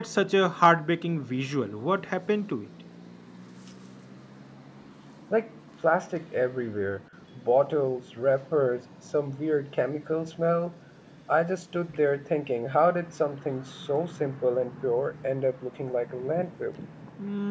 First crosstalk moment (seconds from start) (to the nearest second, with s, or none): none